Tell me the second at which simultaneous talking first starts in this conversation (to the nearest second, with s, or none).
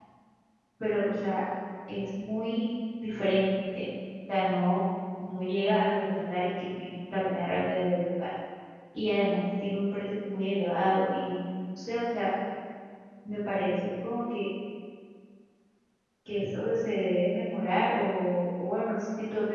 none